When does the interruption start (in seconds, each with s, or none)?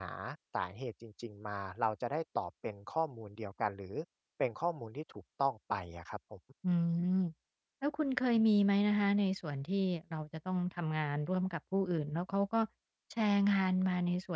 none